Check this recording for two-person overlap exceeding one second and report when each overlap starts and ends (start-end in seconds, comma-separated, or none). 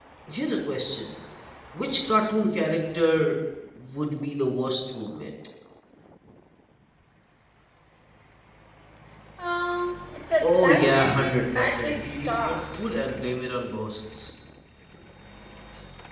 10.4-12.6